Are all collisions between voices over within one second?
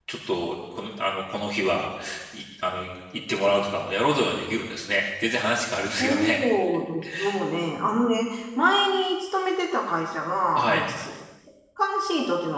Yes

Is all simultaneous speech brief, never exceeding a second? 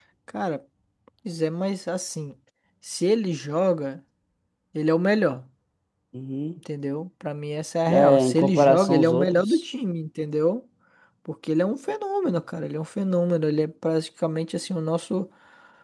No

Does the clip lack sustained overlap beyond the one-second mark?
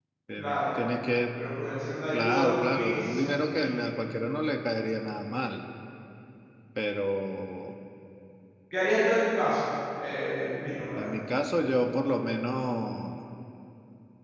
No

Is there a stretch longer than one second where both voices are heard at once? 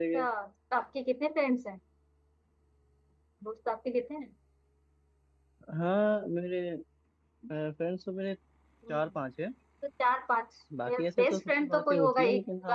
Yes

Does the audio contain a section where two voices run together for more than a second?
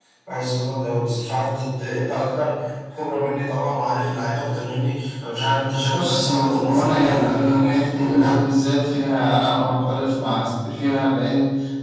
Yes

